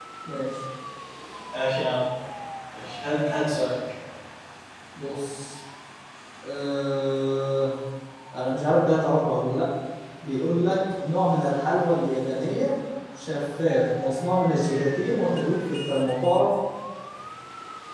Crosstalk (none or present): none